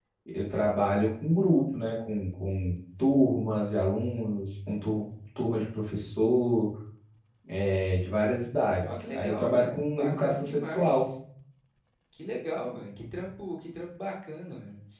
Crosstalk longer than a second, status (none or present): present